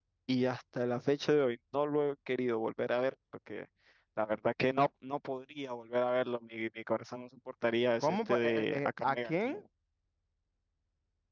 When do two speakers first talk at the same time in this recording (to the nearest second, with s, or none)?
8 s